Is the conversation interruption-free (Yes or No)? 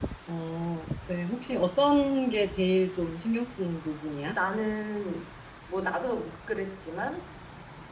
Yes